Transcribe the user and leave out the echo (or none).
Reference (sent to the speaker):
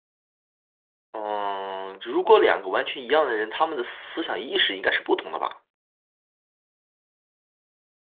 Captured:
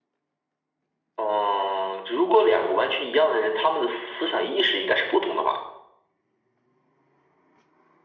none